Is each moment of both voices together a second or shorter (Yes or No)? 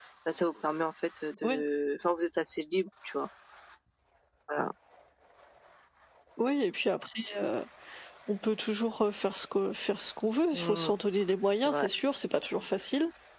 Yes